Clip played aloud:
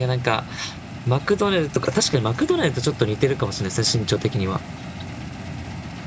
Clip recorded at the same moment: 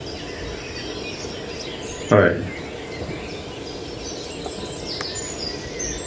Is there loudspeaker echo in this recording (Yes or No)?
No